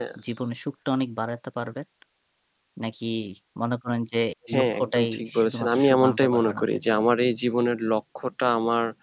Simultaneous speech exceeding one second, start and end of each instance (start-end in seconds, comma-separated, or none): 4.5-7.1